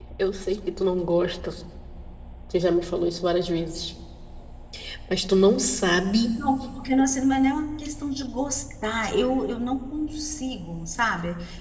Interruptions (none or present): none